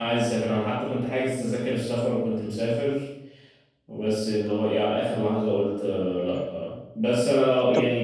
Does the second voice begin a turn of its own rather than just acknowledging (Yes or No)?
No